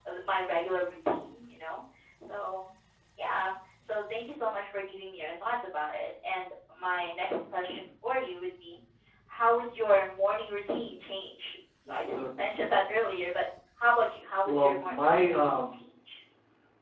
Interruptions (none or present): present